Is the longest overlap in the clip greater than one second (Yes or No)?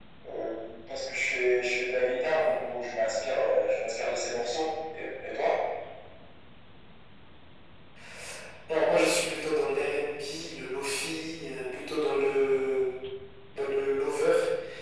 No